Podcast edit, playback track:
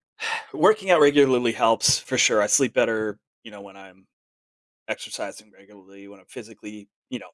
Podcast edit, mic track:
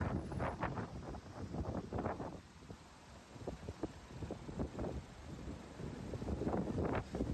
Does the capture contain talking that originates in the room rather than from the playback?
No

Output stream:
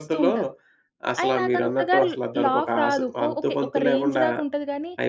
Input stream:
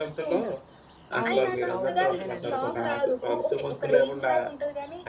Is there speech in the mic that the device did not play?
Yes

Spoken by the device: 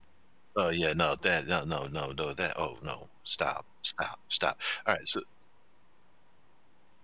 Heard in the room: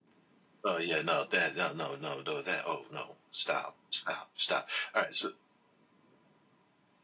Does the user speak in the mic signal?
No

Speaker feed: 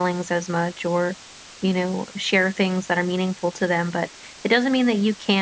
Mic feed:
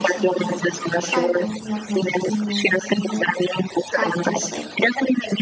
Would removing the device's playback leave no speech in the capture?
No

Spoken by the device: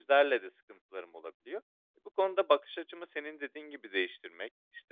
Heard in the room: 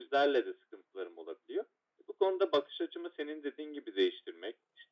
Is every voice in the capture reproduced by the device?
Yes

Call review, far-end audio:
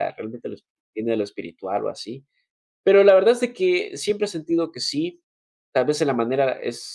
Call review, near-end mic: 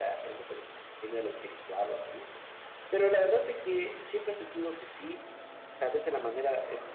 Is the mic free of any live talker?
Yes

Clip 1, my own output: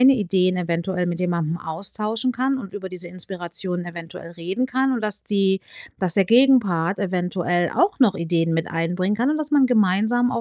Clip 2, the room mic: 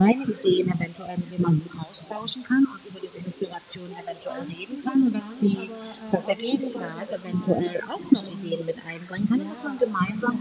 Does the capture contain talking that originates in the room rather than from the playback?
Yes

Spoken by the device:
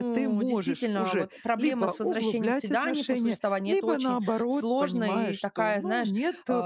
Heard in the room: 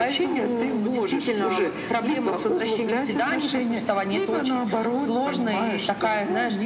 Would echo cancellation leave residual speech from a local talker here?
No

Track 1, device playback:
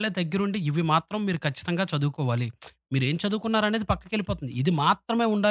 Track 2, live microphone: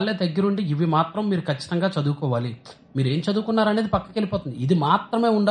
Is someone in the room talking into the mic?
No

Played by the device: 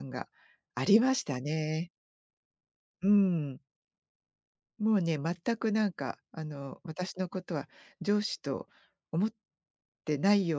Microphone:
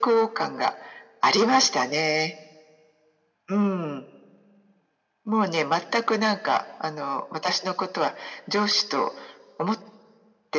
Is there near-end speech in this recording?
No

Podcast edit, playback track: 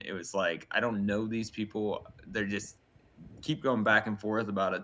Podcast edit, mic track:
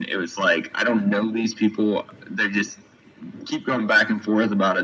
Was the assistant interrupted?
No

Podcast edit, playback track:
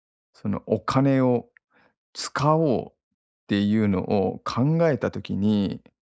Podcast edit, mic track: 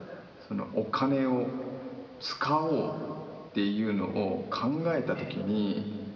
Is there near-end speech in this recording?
Yes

